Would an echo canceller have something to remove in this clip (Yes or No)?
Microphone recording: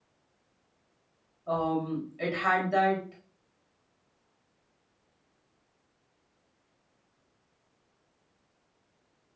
No